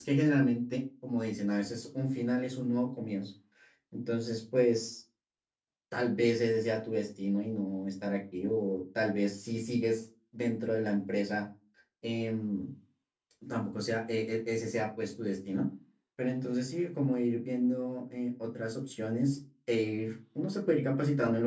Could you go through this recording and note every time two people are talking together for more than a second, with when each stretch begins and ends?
none

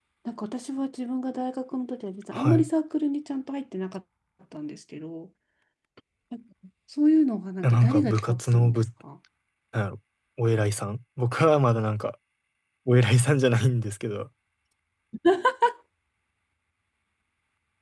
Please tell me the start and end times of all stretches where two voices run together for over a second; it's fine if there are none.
7.6-8.8

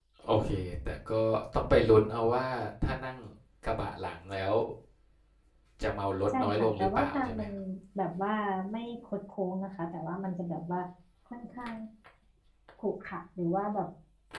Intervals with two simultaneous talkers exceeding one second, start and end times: 6.3-7.5

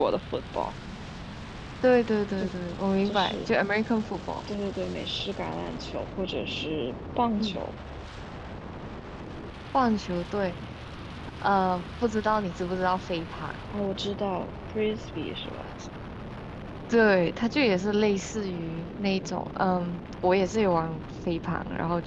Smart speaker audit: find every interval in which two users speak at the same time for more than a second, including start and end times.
none

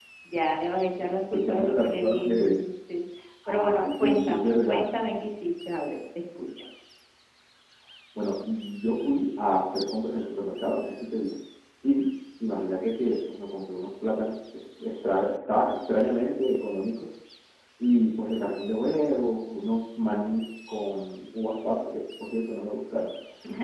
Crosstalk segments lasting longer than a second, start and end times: 1.3-2.6, 3.5-4.8

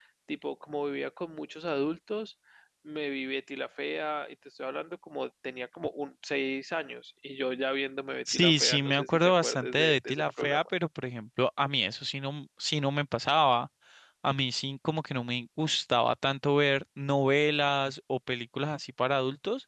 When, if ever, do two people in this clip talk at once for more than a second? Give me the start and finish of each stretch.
8.3-10.6

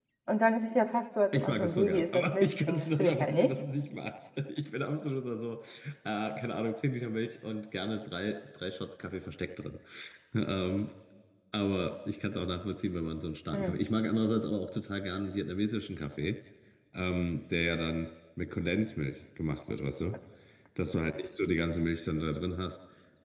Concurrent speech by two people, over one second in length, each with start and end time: 1.3-3.6

